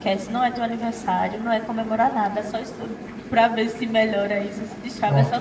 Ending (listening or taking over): listening